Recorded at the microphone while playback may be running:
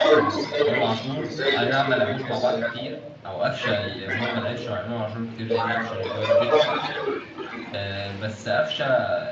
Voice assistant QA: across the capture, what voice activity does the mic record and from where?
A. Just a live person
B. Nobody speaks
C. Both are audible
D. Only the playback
C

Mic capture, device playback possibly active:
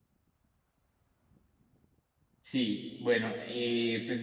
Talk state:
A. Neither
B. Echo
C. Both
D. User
D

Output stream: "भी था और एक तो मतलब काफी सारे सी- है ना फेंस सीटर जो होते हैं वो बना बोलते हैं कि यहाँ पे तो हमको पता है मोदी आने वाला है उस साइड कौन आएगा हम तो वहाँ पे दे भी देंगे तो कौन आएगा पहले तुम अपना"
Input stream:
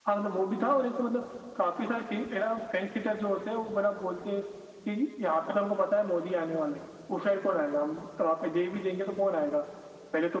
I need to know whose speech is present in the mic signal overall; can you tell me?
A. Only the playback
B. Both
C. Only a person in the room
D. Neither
A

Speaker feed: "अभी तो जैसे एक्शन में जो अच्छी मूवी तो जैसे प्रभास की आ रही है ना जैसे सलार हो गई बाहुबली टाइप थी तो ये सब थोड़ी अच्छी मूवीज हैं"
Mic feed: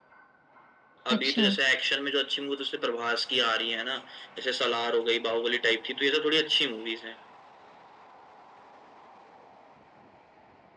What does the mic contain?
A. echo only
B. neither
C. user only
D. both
D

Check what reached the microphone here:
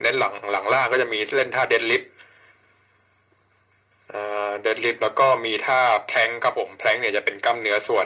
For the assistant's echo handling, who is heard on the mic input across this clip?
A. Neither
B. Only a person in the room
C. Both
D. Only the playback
D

